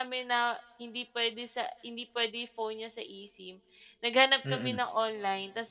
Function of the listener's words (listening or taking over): listening